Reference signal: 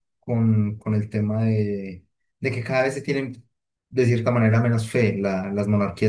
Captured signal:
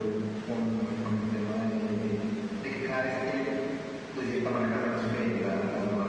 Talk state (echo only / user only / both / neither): echo only